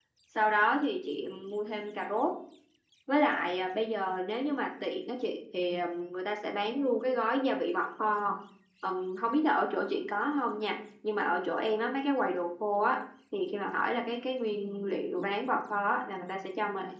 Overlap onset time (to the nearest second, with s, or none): none